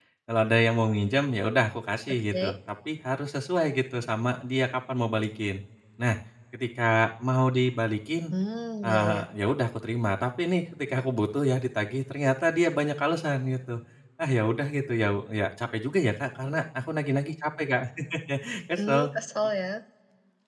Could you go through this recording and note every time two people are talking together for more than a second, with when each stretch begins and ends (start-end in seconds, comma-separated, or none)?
none